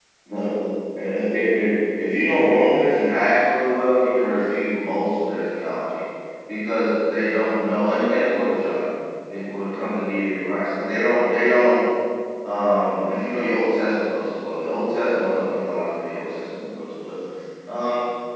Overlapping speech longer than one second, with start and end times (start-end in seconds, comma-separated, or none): none